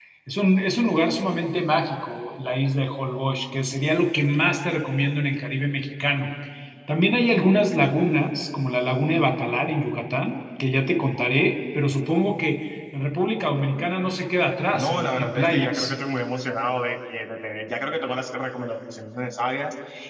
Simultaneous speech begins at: 15 s

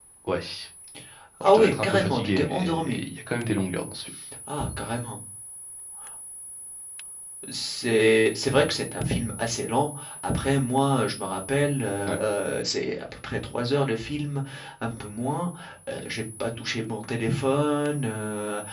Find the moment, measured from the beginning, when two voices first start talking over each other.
1 s

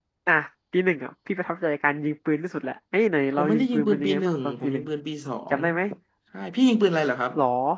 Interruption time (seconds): 3 s

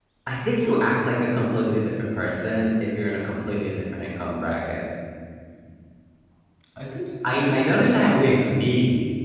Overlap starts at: 7 s

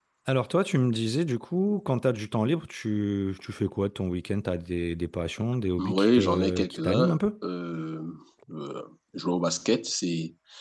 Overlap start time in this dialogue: 6 s

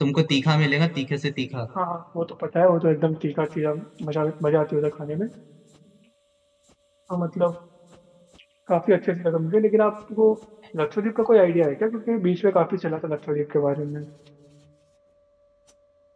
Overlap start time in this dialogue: none

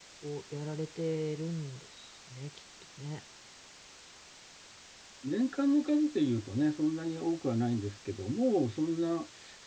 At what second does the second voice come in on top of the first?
none

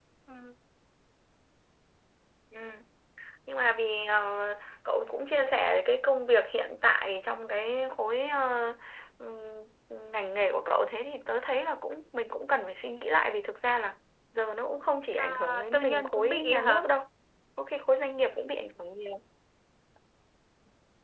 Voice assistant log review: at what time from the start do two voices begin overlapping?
15 s

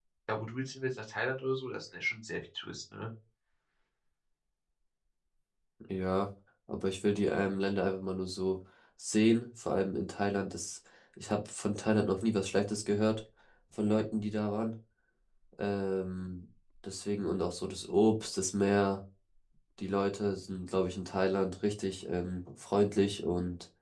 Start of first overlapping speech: none

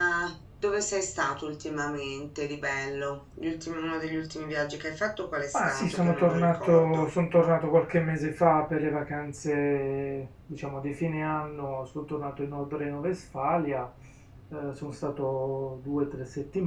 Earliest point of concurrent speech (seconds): 6 s

